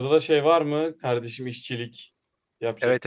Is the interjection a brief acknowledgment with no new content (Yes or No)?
No